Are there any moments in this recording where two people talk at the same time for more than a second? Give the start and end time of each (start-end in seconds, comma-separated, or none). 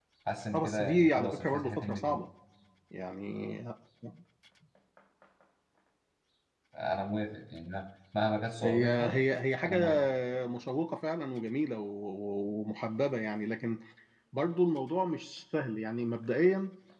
0.5-2.2